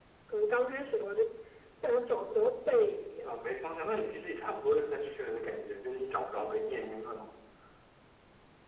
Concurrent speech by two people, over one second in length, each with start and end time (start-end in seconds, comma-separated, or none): none